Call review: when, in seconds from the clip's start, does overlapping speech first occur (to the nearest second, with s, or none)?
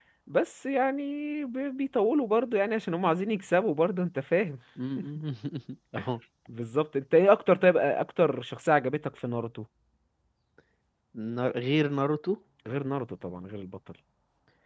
none